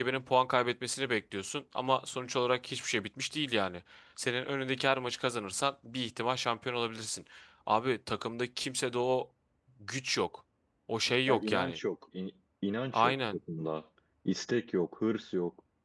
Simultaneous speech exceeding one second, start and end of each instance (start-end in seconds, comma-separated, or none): none